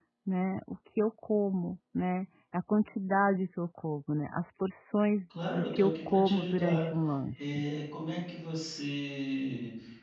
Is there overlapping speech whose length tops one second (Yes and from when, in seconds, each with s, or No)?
Yes, from 5.3 s